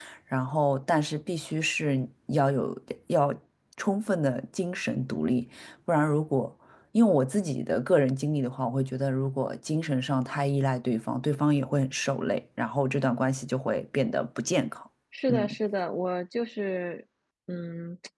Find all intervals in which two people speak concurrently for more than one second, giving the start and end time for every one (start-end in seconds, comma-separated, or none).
none